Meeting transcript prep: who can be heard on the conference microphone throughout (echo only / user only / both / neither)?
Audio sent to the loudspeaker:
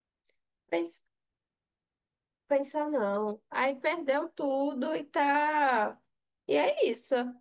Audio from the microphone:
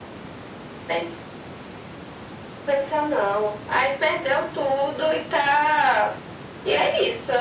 echo only